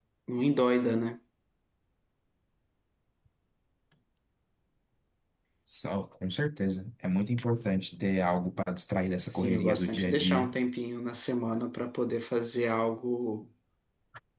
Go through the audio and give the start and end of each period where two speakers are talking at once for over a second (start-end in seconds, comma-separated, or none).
9.3-10.6